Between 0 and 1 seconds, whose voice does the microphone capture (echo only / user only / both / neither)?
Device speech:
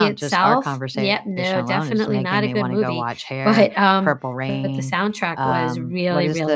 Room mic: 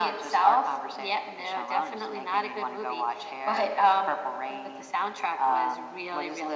echo only